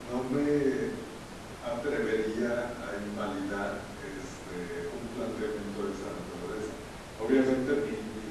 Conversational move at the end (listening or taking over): listening